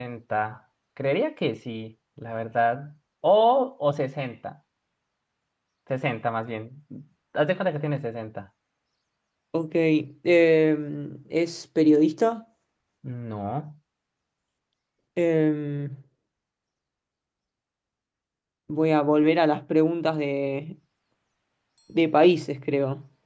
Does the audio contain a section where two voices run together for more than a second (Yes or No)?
No